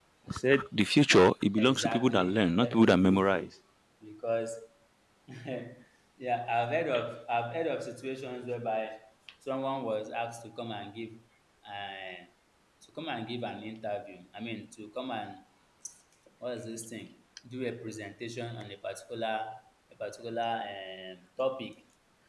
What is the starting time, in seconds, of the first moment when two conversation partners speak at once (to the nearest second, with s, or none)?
2 s